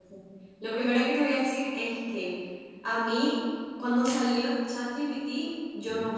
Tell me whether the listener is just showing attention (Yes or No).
Yes